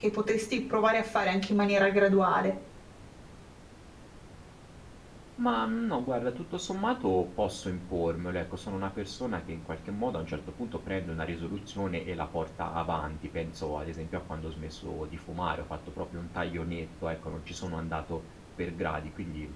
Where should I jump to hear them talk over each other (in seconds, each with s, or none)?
none